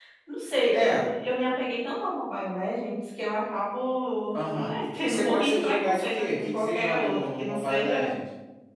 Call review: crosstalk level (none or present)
present